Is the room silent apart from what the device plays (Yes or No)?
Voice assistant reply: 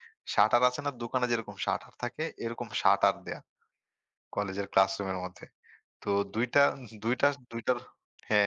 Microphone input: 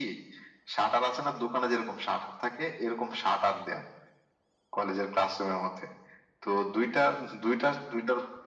Yes